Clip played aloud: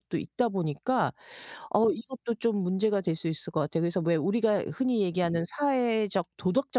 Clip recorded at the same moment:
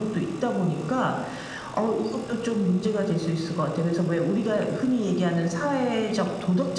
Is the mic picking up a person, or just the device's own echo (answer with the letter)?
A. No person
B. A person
A